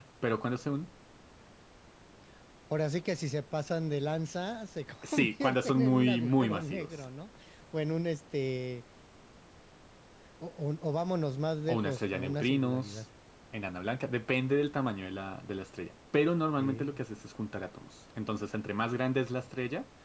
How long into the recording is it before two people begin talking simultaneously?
5.0 s

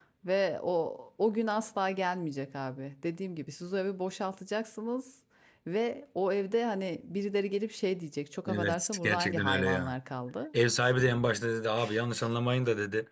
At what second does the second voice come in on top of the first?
8.5 s

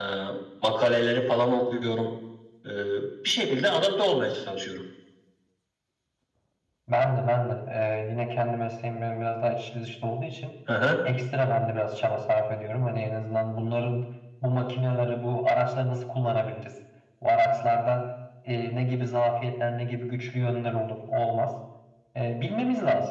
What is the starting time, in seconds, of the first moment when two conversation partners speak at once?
none

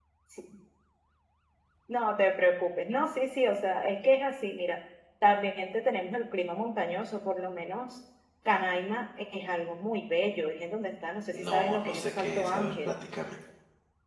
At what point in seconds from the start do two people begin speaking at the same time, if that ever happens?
11.3 s

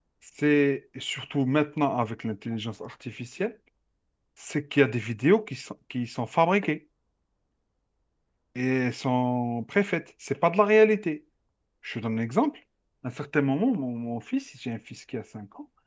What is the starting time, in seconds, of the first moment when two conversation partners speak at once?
none

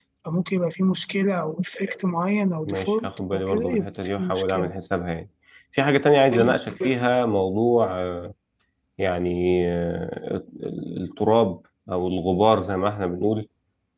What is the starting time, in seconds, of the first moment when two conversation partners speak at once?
2.7 s

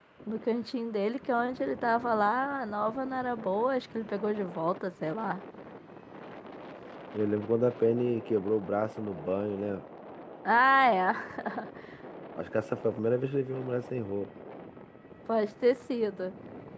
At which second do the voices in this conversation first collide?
none

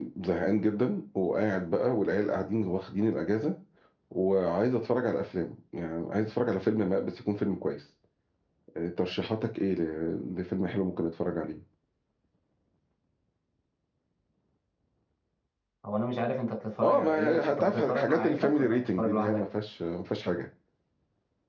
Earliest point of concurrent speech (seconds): 16.8 s

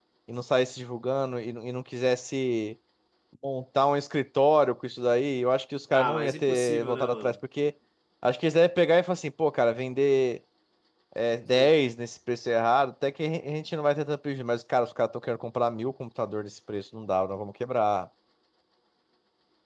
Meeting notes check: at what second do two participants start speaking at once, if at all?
5.9 s

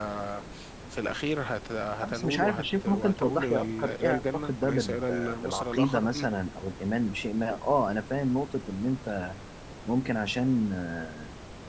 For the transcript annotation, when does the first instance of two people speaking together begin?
2.0 s

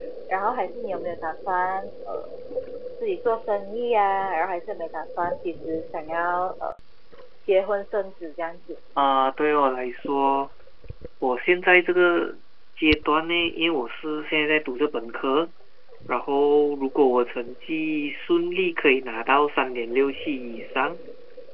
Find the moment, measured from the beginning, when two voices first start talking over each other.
none

